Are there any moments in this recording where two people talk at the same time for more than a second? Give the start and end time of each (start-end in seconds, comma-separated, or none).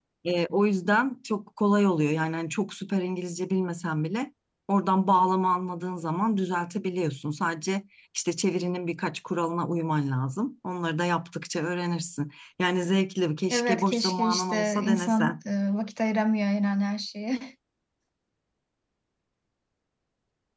13.5-15.4